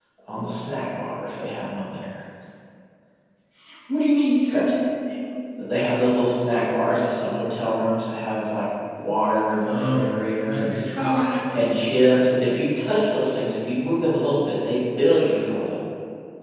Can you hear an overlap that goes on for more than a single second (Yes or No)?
Yes